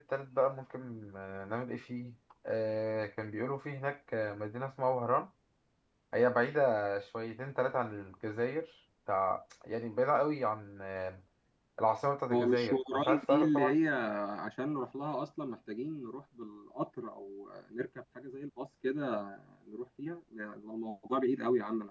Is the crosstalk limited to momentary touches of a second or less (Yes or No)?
No